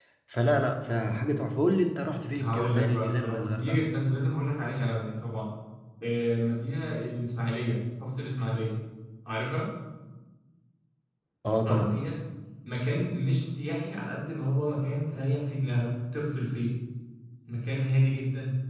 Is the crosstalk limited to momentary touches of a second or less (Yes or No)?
No